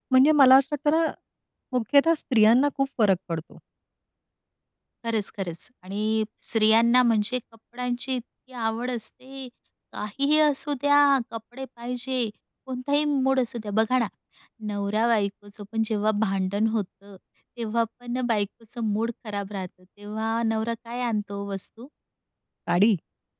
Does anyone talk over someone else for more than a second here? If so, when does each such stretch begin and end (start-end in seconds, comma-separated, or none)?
none